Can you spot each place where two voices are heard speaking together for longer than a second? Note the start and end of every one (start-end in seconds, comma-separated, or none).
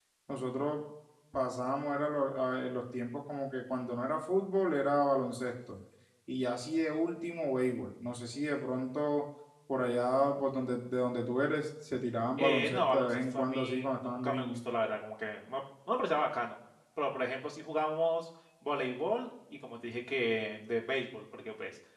12.4-14.6